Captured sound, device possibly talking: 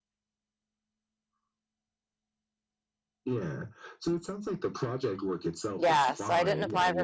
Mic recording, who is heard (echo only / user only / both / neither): both